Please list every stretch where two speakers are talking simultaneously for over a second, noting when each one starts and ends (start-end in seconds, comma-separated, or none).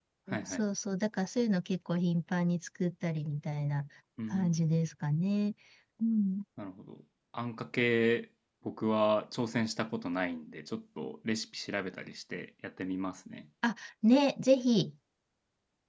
none